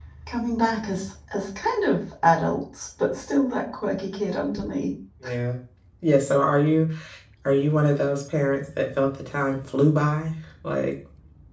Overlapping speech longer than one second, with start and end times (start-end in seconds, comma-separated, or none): none